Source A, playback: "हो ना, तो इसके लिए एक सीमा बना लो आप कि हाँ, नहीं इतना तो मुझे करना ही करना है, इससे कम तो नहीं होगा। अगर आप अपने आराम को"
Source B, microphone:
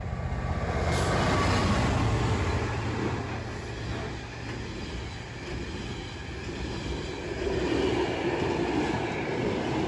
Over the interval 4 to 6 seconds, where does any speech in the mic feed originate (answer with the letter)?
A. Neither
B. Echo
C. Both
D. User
A